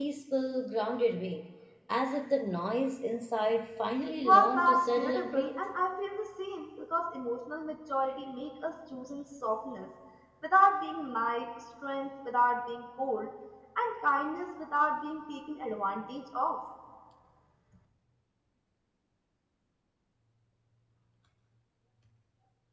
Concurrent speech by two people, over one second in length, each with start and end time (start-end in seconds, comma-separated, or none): 4.2-5.6